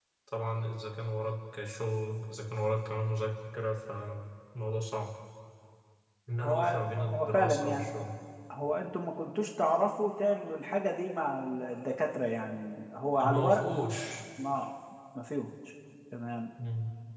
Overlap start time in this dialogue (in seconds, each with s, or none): 6.4 s